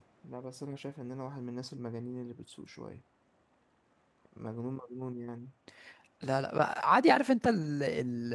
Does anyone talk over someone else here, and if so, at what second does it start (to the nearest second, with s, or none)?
none